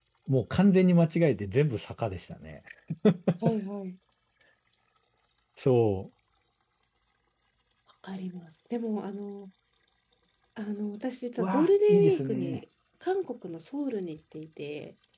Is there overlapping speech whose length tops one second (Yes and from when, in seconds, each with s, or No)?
Yes, from 11.4 s